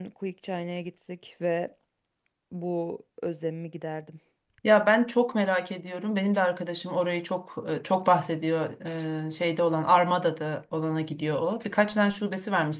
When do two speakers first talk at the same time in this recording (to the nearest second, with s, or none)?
none